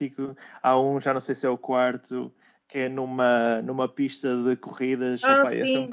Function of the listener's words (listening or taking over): listening